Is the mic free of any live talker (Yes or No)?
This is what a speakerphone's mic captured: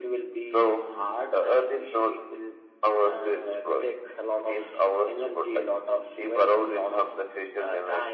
Yes